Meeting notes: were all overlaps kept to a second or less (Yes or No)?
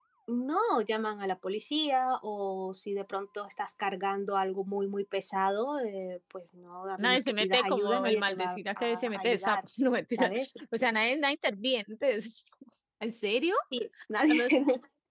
No